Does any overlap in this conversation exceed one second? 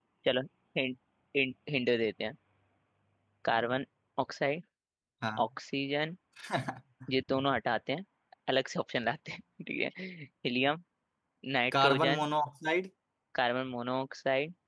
No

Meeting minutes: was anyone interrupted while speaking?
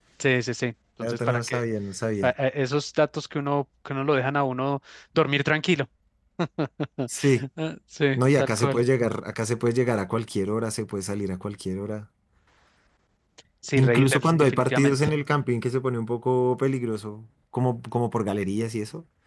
Yes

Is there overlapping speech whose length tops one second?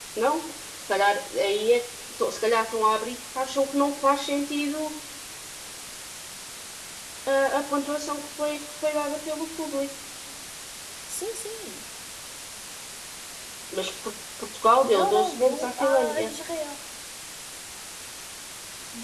Yes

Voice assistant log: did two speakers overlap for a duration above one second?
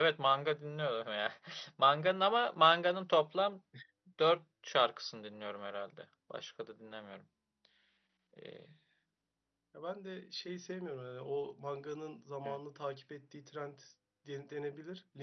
No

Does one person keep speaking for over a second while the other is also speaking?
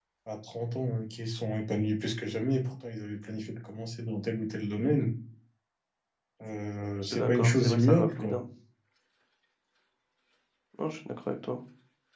Yes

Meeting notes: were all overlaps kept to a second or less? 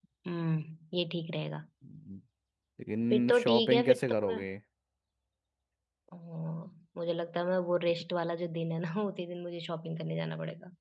No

